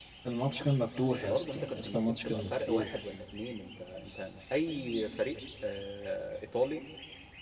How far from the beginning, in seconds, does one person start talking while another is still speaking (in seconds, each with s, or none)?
1.1 s